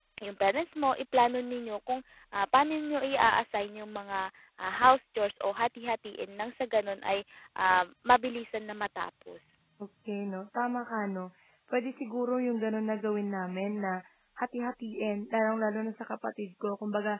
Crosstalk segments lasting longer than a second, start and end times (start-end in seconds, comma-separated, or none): none